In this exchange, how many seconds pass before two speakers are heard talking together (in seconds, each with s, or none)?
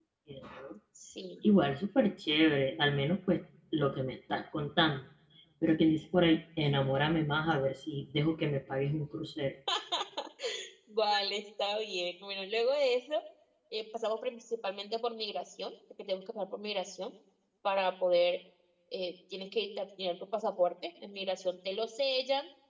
none